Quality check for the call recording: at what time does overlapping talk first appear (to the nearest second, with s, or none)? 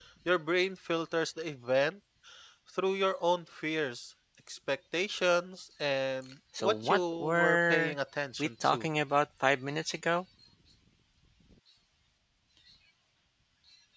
7 s